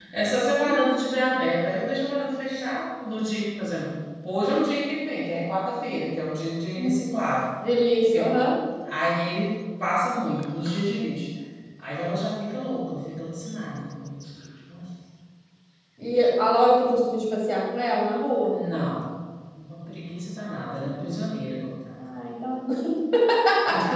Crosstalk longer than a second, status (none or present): none